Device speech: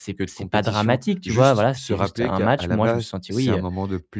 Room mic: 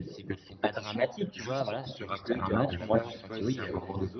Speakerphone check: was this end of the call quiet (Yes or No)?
No